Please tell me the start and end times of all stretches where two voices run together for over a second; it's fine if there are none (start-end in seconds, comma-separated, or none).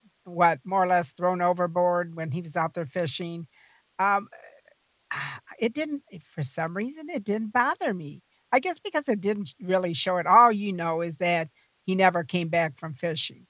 none